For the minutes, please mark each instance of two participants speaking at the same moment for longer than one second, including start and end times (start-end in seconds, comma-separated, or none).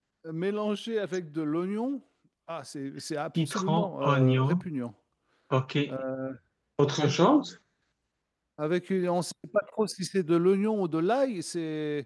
3.4-4.6